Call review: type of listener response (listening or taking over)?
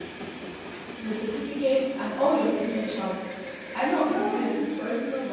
listening